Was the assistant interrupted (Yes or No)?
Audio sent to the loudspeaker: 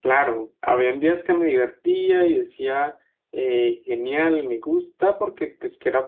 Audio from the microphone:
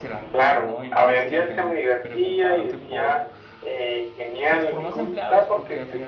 Yes